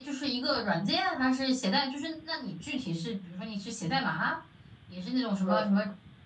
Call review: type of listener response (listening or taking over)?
listening